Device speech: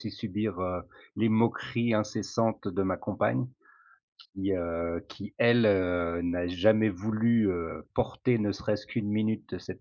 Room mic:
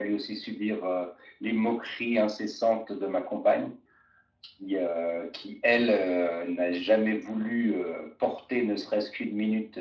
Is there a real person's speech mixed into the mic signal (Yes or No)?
No